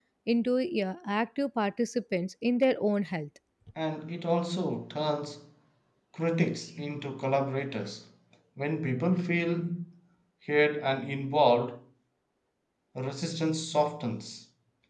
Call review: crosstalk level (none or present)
none